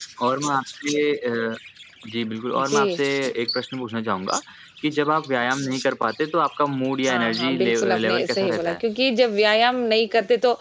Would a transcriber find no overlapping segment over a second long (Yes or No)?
No